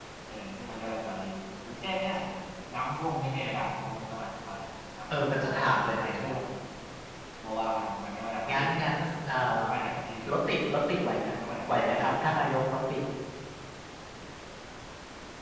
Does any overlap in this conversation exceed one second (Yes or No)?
Yes